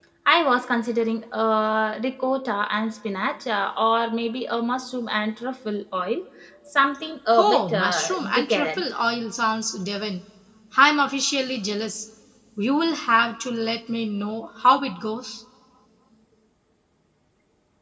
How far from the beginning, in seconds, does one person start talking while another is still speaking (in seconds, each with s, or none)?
7.4 s